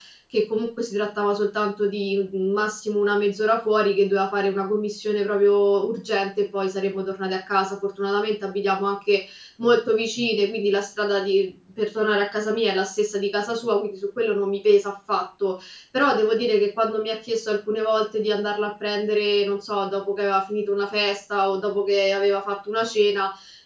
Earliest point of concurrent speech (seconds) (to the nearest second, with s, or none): none